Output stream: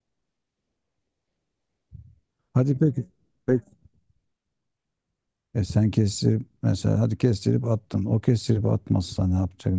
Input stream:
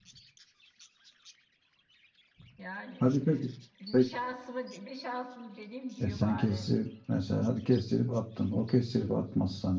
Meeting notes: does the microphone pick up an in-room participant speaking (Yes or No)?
Yes